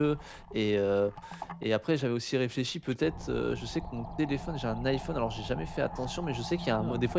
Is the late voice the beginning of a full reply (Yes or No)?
No